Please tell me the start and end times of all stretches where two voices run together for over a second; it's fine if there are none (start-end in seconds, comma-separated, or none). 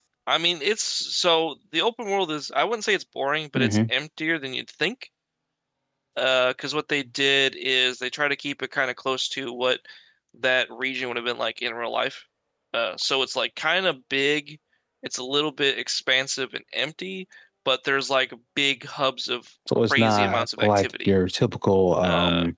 19.9-21.1